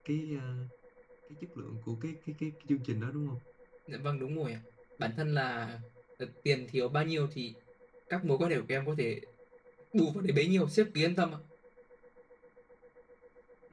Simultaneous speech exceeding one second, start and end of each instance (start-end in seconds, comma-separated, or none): none